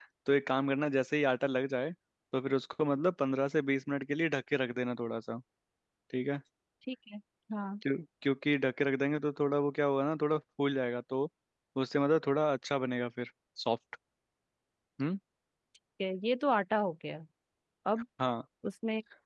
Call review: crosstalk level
none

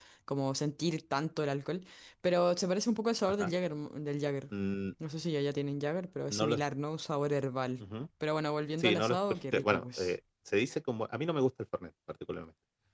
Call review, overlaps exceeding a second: present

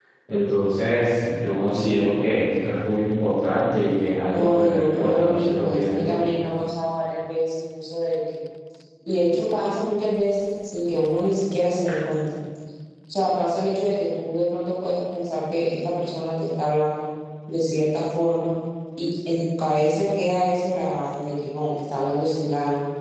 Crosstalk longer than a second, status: present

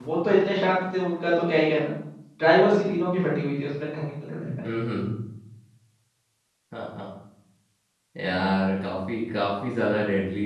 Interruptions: none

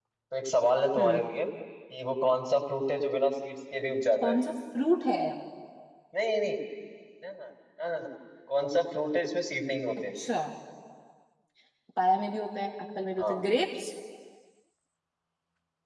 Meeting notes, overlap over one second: none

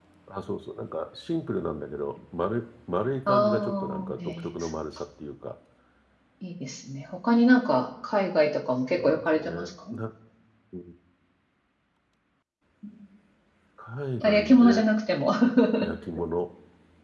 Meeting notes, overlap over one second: present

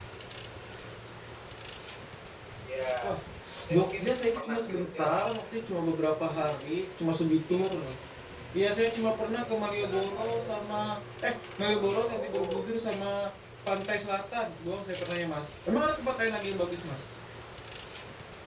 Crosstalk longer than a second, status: present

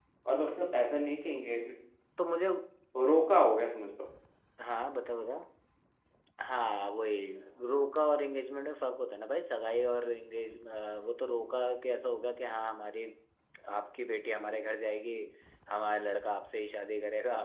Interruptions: none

